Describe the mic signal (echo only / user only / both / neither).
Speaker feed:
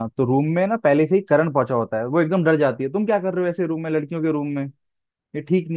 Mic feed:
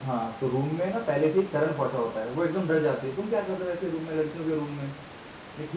echo only